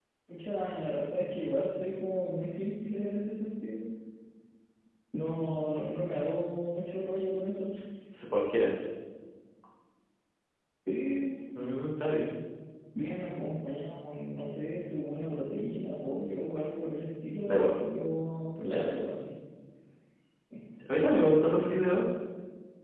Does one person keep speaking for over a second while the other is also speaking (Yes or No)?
No